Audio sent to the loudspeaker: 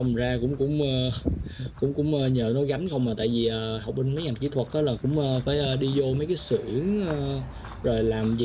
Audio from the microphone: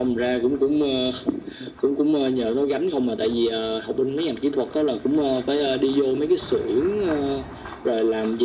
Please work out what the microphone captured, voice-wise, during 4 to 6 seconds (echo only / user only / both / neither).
echo only